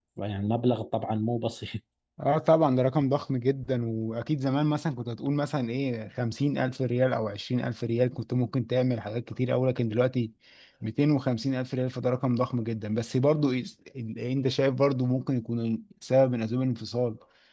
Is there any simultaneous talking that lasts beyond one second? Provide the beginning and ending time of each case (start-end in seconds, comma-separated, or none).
none